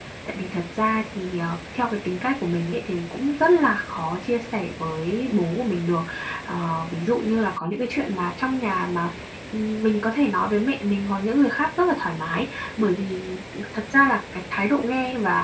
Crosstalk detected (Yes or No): No